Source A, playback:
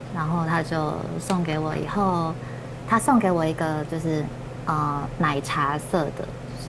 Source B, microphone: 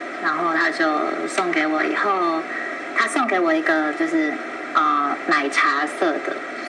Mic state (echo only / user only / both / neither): echo only